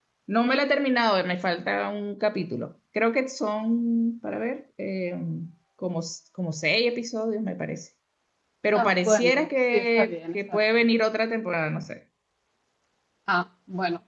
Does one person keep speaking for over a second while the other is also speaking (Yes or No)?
Yes